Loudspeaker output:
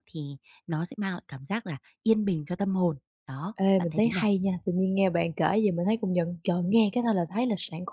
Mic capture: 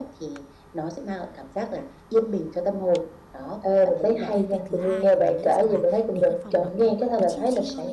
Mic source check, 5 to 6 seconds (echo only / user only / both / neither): both